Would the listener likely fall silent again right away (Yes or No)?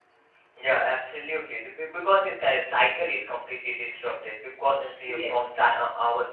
Yes